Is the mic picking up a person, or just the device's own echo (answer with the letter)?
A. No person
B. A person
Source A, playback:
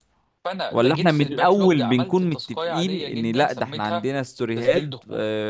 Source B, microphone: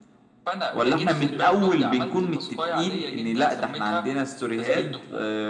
A